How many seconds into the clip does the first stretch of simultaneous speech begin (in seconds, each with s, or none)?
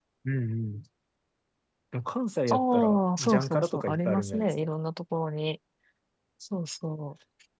2.5 s